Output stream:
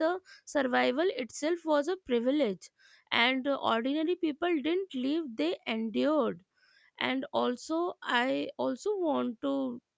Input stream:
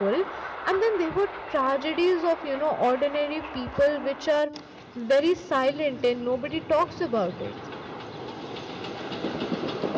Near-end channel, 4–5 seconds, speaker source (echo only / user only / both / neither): user only